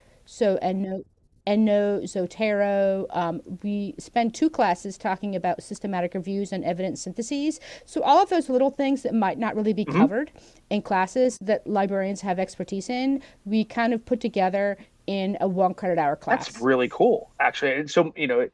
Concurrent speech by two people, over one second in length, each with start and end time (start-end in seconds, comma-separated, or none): none